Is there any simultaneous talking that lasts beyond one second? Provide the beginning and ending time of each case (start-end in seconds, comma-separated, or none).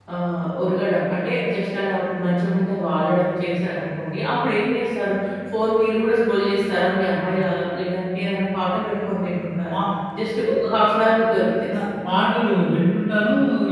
none